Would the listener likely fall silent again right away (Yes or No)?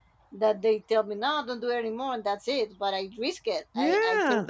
No